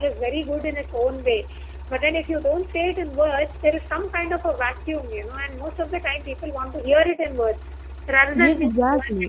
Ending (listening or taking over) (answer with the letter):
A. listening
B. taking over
B